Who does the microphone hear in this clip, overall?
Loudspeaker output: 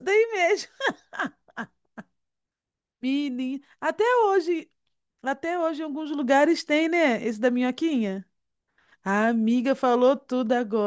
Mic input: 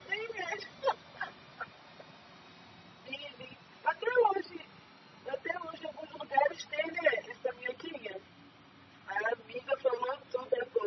echo only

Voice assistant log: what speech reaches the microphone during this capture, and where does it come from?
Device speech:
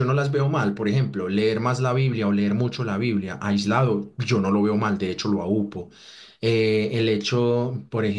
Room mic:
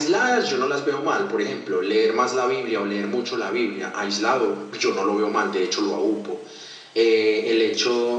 echo only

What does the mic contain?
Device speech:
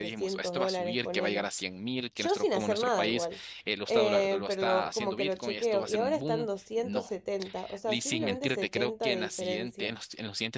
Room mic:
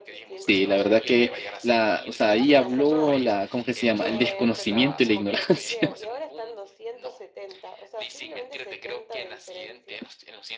both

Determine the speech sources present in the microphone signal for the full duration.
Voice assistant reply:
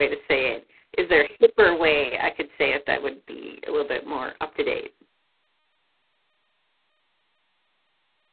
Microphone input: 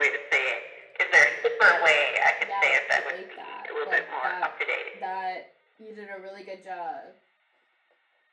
both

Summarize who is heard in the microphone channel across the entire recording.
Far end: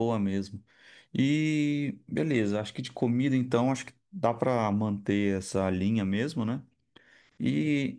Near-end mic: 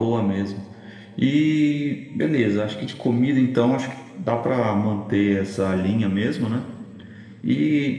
echo only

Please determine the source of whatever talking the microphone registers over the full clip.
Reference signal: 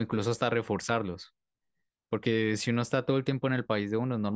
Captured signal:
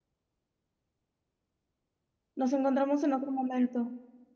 user only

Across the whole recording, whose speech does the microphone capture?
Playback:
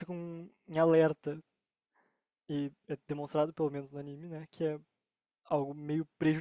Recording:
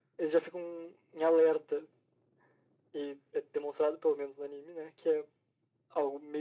echo only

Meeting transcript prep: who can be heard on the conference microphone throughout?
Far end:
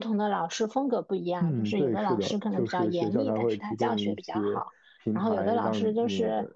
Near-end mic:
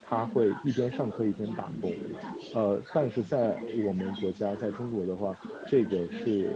both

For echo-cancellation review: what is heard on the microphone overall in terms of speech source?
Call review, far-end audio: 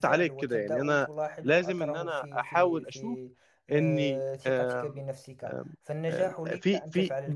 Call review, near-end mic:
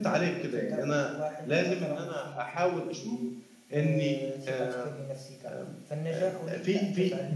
echo only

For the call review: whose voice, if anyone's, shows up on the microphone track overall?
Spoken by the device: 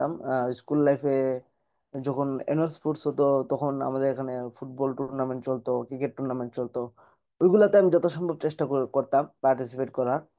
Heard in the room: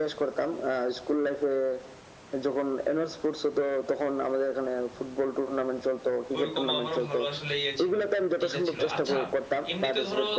both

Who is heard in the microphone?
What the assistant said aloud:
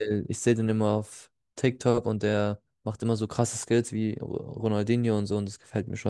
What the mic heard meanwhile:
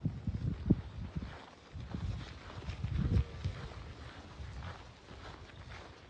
neither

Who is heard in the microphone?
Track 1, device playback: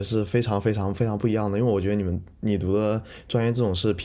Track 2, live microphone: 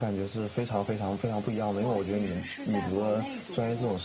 both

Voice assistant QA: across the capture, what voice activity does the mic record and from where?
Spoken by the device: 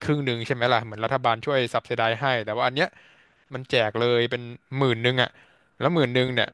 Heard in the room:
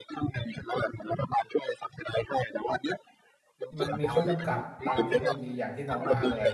both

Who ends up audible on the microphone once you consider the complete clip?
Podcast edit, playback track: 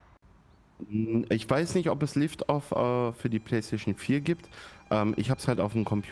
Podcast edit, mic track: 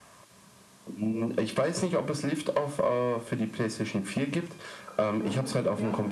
both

